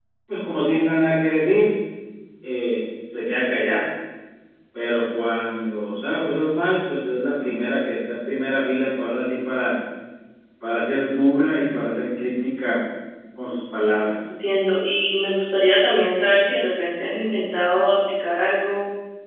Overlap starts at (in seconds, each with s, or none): none